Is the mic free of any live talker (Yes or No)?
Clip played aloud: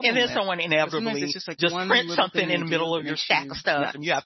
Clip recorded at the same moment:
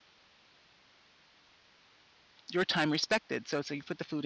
No